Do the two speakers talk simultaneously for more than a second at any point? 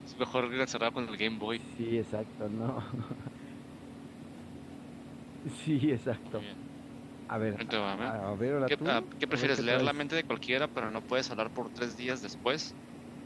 Yes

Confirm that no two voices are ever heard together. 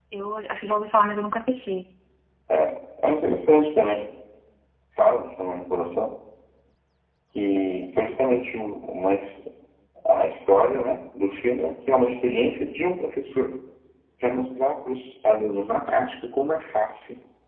Yes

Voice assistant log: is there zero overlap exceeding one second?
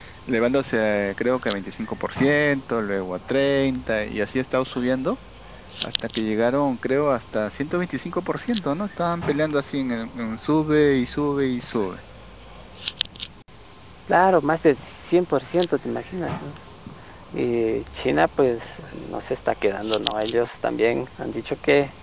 Yes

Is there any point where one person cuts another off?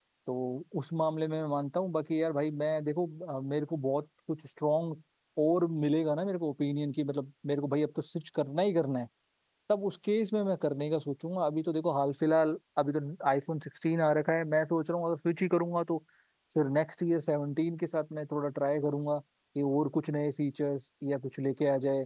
No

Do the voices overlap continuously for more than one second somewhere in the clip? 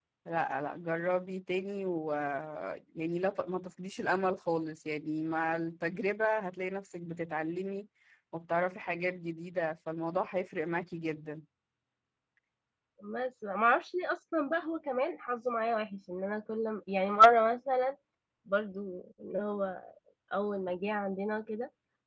No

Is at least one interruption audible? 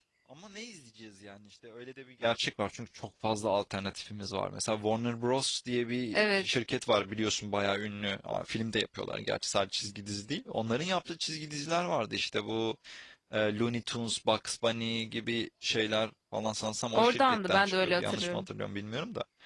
Yes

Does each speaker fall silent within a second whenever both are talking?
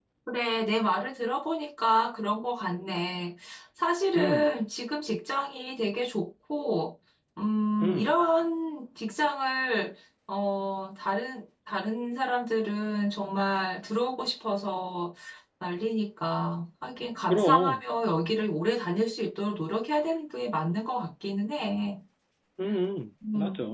Yes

